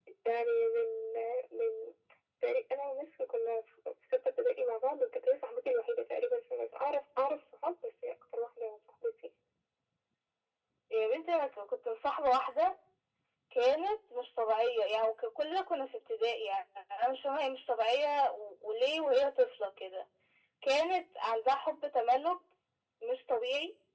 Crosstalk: none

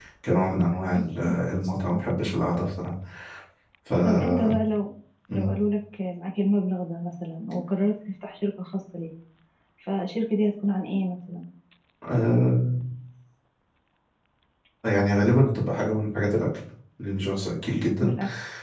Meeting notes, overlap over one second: none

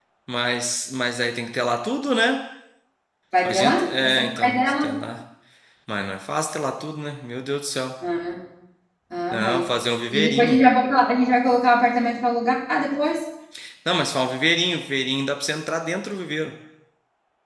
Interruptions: present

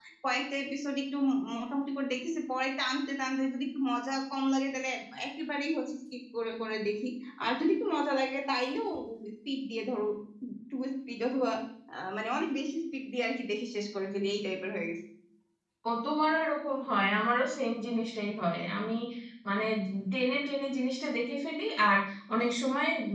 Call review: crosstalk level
none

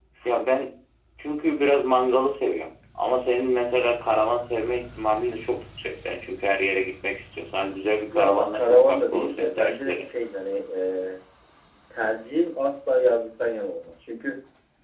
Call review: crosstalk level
present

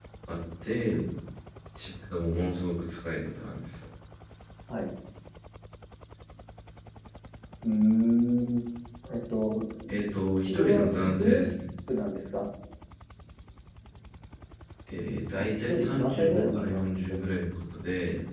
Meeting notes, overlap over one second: present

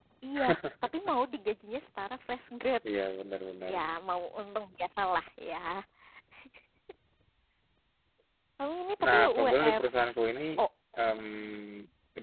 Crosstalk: present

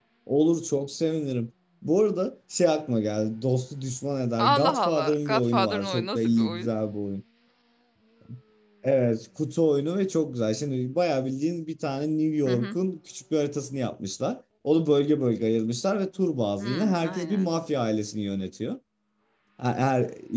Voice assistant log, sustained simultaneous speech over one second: present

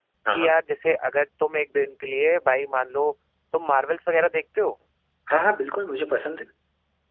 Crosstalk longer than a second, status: none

